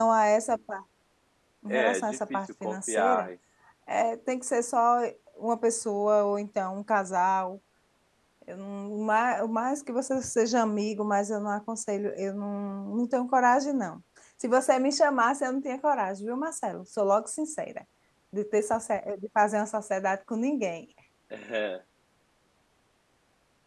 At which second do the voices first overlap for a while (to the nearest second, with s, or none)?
2 s